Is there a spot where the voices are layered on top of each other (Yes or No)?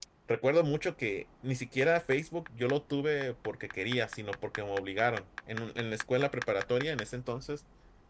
No